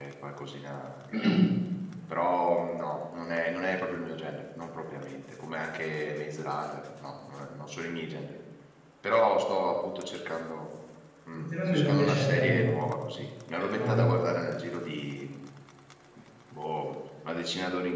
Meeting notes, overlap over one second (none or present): present